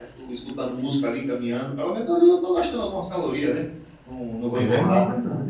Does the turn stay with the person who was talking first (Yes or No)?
No